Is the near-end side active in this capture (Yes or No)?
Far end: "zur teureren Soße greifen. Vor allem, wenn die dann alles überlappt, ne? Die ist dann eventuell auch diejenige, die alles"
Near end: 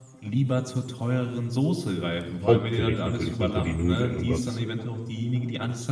Yes